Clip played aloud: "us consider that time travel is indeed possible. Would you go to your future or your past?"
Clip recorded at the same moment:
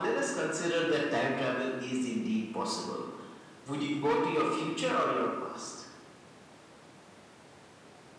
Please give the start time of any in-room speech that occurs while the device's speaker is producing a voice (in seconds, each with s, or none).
none